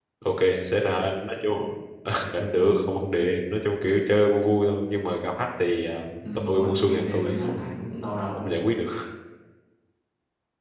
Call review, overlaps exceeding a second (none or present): present